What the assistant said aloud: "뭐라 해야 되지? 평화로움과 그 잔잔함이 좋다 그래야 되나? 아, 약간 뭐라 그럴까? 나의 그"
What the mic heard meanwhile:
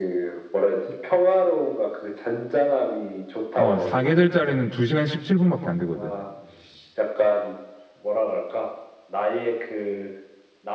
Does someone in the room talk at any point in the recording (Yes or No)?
Yes